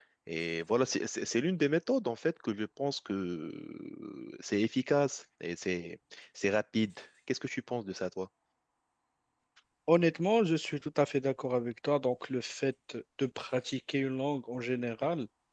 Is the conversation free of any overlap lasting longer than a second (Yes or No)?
Yes